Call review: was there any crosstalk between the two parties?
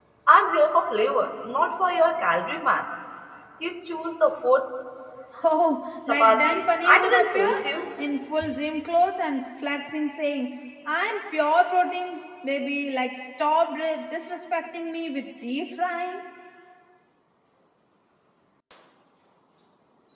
Yes, from 6.1 s

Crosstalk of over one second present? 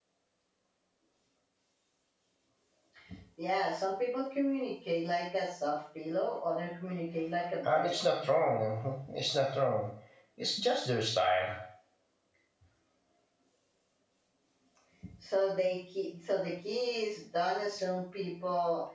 No

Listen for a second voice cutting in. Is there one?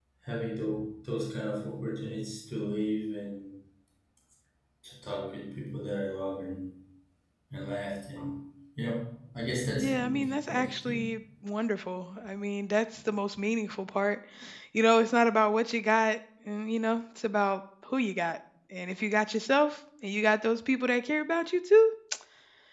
Yes, from 9.8 s

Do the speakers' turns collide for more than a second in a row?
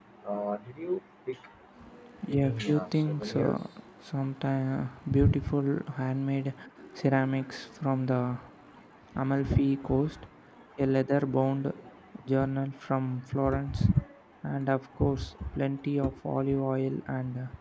Yes, from 2.3 s

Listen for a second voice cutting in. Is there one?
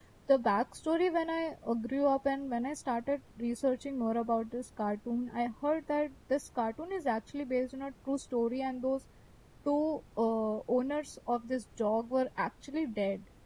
No

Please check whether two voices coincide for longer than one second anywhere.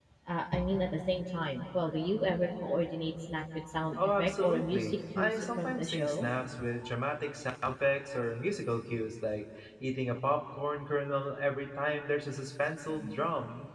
Yes, from 4.0 s

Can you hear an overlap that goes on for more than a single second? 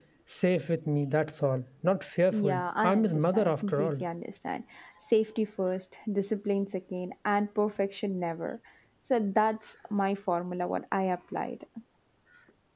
Yes, from 2.3 s

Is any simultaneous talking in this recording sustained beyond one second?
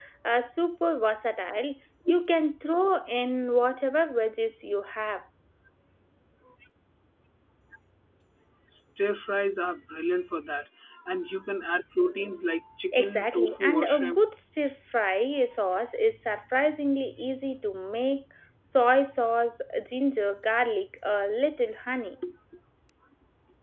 Yes, from 12.9 s

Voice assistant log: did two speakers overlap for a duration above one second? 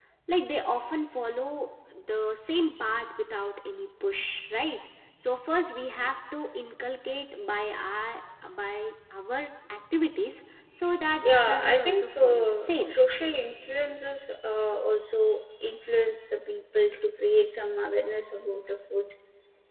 Yes, from 11.2 s

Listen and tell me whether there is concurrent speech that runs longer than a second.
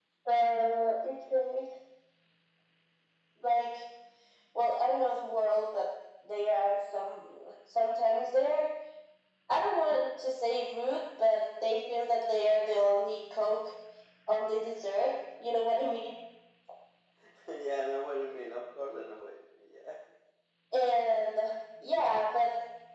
No

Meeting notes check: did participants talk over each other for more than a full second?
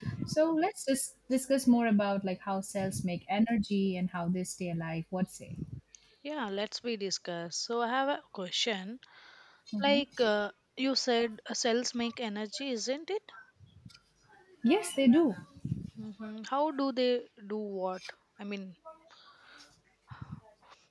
No

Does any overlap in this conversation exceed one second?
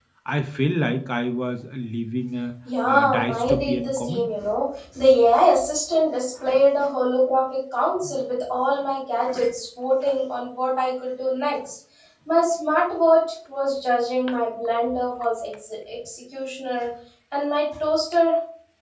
Yes, from 2.6 s

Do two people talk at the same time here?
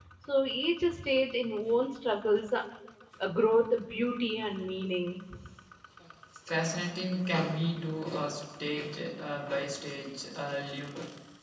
No

